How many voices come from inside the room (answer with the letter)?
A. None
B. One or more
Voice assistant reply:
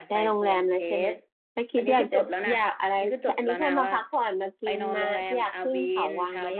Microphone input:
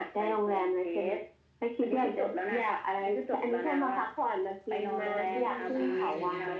B